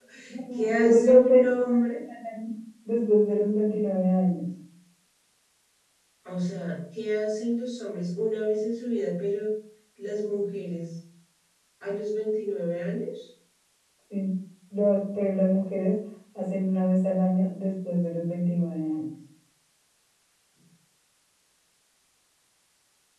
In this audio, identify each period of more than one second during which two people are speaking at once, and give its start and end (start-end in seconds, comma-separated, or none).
0.6-2.0